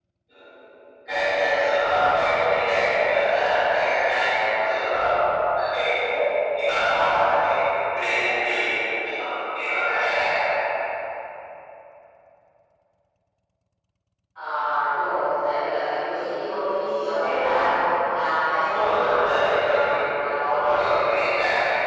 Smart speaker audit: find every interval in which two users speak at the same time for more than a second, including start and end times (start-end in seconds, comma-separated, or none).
18.6-21.0